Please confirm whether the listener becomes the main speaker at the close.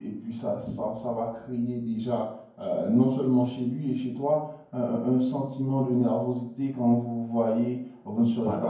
No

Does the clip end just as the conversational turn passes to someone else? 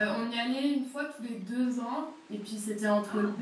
No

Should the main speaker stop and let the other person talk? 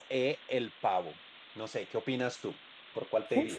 Yes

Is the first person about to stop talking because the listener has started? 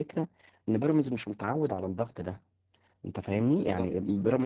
No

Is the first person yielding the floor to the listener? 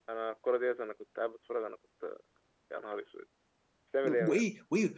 Yes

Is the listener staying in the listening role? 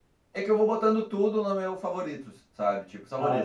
Yes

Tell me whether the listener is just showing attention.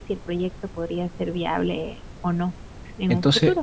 No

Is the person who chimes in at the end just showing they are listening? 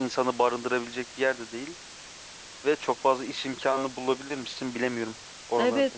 No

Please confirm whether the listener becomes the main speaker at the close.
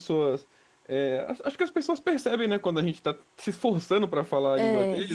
No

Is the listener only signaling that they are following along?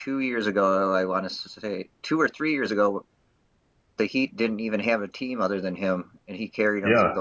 No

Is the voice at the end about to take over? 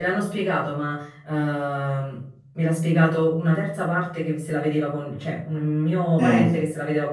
No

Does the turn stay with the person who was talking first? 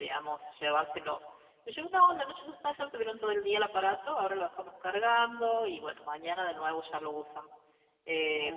Yes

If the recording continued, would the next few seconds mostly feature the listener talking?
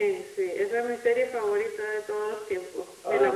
No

